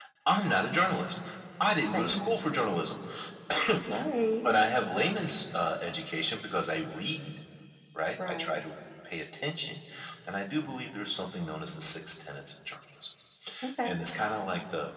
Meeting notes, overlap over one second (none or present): none